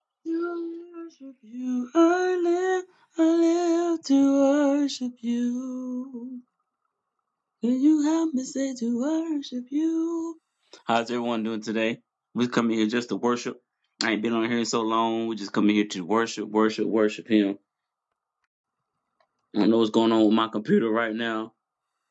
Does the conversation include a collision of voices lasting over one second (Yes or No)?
No